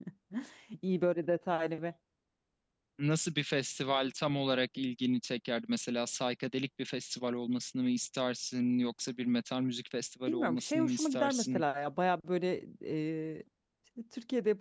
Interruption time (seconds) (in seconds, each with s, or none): 10.3 s